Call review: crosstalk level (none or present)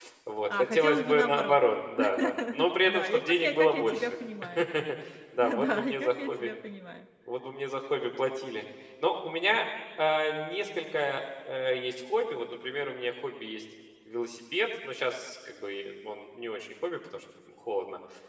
present